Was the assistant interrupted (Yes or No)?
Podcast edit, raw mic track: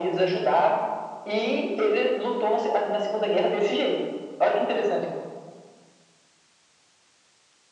No